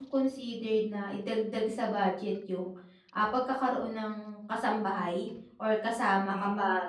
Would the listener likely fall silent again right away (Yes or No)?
Yes